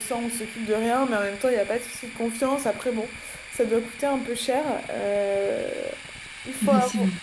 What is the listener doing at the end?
listening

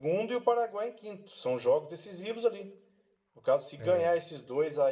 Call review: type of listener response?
listening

